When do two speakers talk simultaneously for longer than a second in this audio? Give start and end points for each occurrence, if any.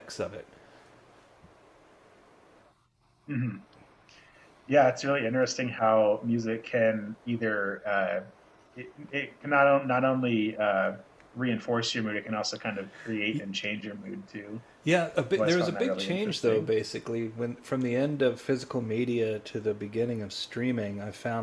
15.4-16.7

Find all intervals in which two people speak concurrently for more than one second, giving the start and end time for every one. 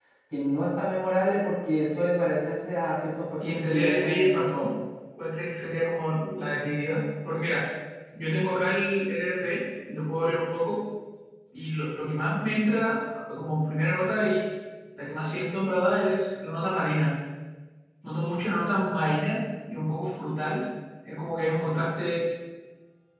3.5-4.7

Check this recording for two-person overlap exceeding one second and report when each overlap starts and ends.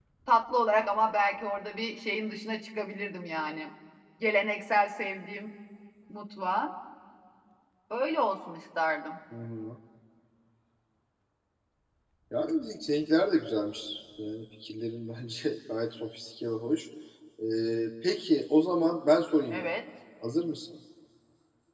none

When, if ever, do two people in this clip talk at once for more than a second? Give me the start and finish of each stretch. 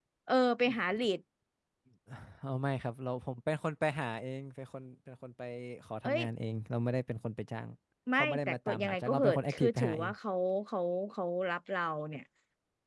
8.2-10.1

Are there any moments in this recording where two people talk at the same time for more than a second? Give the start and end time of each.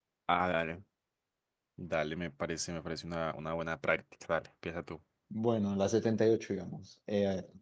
none

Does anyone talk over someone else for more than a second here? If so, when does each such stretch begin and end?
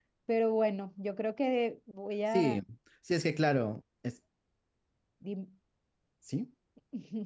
none

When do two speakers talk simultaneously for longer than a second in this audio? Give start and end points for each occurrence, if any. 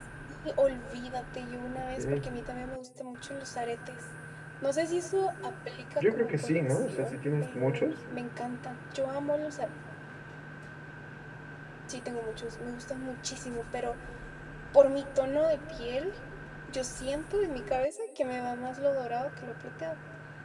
6.0-7.8

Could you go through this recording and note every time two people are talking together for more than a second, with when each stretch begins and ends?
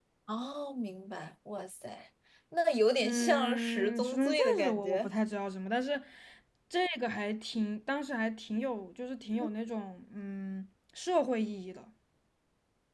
3.0-5.1

